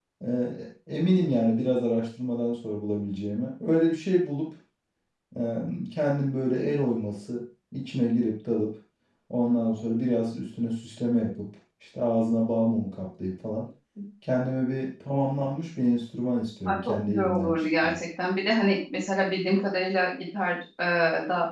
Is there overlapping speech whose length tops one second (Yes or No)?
Yes